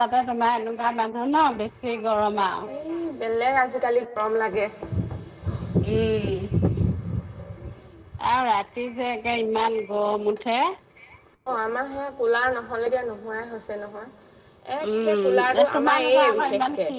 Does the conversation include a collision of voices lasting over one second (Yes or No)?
Yes